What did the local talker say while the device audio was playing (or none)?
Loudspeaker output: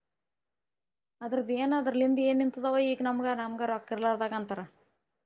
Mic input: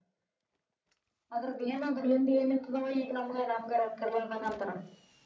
none